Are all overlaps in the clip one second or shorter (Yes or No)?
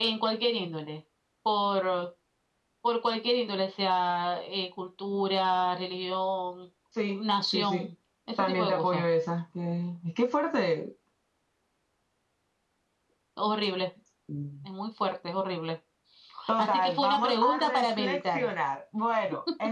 No